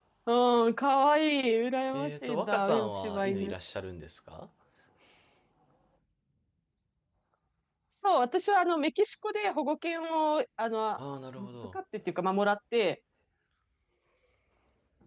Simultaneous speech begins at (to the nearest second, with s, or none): 2 s